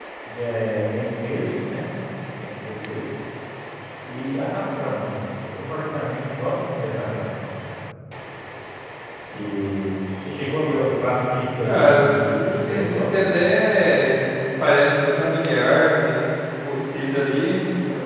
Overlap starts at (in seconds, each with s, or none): 11.6 s